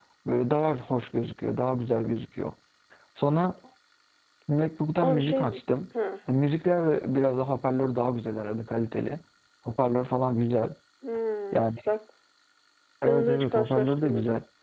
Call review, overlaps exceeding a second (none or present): present